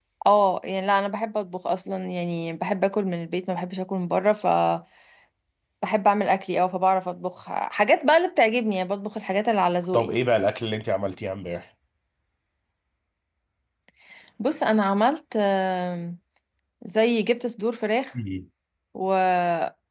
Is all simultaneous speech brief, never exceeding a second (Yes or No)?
Yes